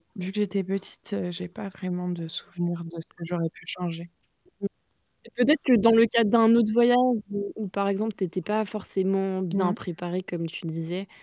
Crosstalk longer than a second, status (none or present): none